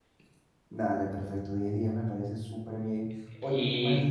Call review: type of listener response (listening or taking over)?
listening